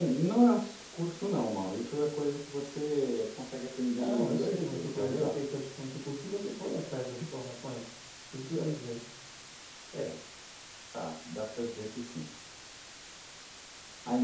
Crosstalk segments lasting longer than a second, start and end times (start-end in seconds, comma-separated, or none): 3.9-5.4